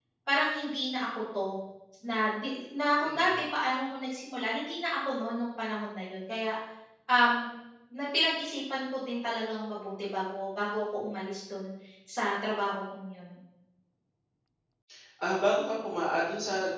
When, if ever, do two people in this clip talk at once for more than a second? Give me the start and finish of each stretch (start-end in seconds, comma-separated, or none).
none